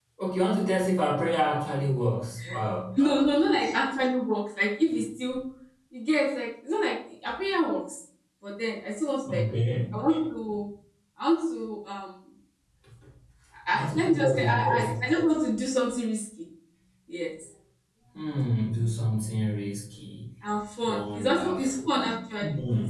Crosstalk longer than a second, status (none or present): present